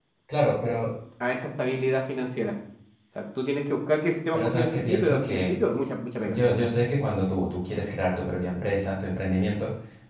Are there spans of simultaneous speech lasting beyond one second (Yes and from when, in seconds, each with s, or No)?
Yes, from 4.3 s